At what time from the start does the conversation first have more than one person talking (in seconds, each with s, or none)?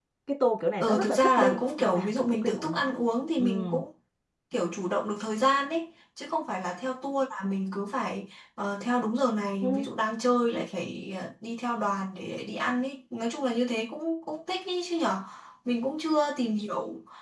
0.8 s